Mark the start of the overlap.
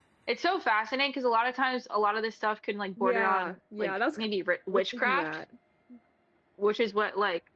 3.0 s

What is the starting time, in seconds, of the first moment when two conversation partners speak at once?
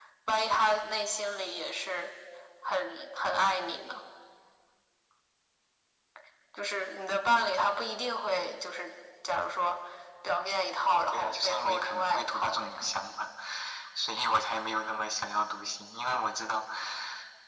11.1 s

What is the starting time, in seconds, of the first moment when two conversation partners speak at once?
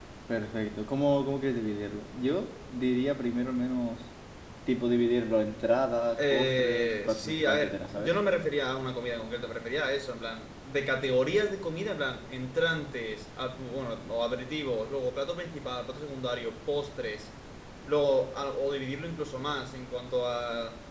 6.2 s

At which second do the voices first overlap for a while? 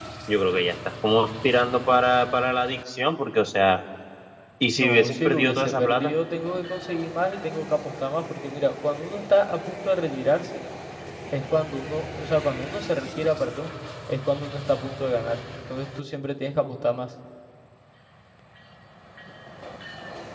4.8 s

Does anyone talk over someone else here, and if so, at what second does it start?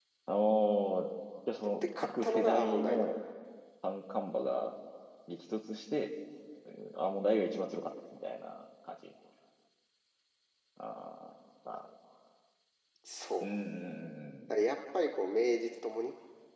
2.0 s

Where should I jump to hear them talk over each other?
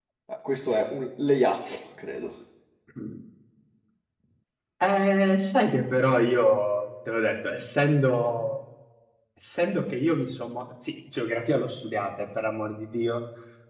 none

